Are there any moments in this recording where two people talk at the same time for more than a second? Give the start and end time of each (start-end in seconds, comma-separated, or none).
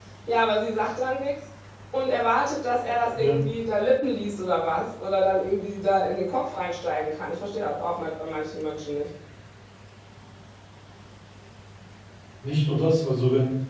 none